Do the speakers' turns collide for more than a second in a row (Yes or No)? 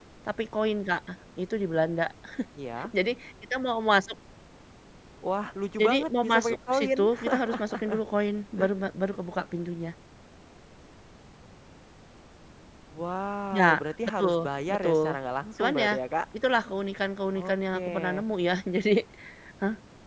Yes